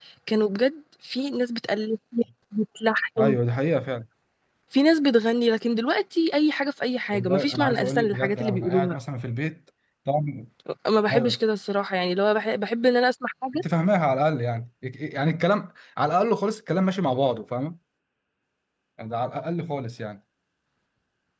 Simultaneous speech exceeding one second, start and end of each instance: 7.1-9.0

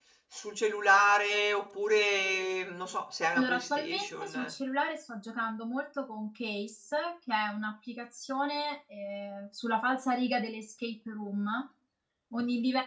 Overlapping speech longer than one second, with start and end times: 3.3-4.5

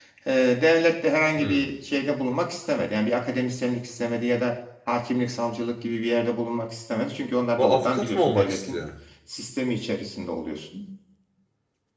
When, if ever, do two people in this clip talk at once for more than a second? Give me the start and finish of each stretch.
7.6-8.8

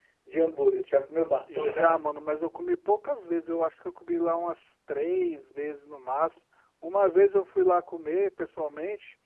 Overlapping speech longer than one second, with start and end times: none

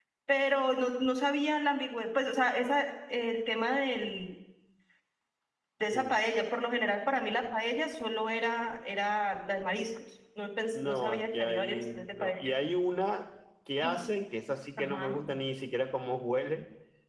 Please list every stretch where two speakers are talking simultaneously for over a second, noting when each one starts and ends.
10.7-12.4

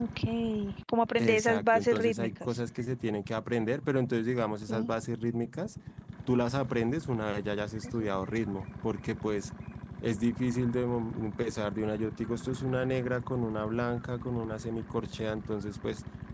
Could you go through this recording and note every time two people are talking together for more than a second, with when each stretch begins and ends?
1.2-2.6

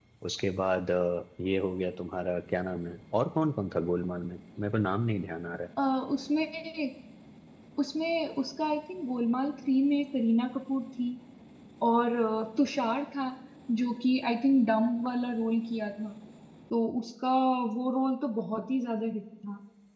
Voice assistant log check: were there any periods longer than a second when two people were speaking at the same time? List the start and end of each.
none

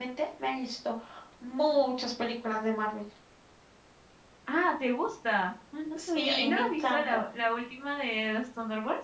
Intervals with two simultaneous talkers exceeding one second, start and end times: 5.9-7.3

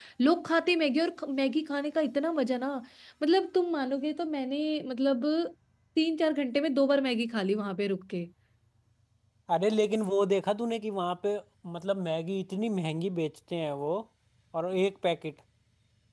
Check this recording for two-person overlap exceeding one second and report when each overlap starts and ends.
none

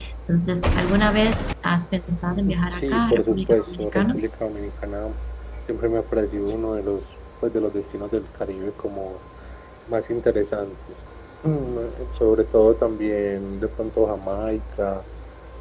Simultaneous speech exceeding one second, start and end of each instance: 2.7-4.2

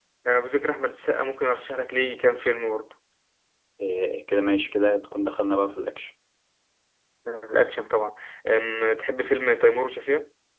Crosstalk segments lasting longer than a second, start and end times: none

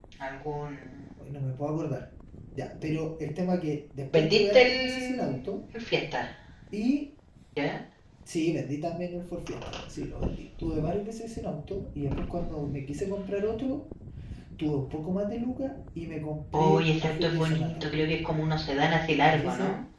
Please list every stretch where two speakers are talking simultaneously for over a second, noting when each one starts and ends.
4.1-5.5, 16.5-17.9

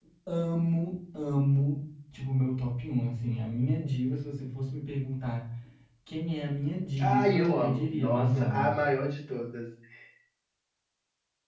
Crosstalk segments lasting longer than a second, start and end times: 7.0-8.8

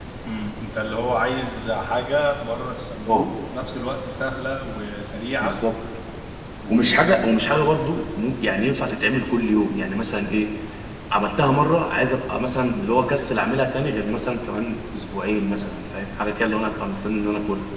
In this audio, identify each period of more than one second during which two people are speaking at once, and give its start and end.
none

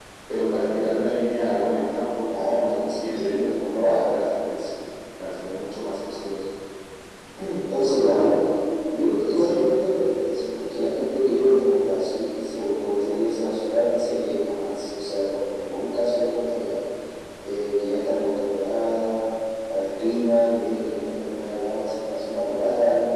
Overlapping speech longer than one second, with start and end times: 2.4-4.2

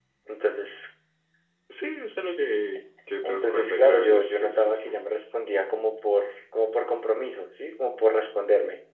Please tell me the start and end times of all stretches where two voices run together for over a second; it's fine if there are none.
3.2-4.9

